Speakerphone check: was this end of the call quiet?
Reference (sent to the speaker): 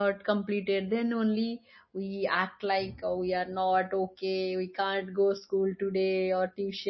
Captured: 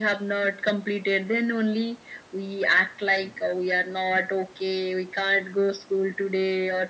Yes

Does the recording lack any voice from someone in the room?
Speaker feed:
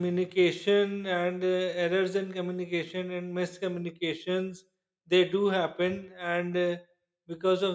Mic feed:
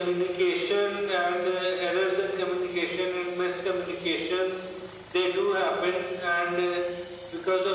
Yes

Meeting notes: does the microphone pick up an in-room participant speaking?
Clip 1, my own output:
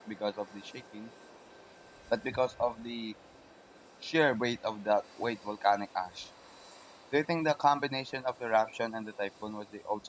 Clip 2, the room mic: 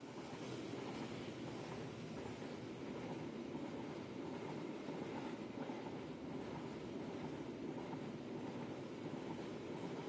No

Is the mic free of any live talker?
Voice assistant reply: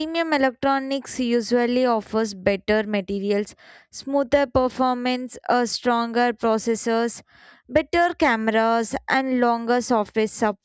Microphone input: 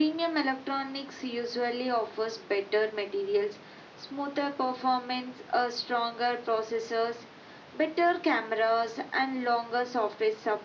Yes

